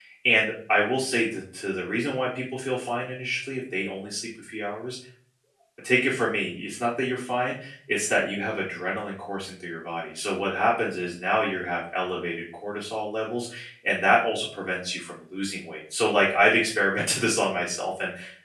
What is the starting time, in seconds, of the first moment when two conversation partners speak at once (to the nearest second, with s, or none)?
none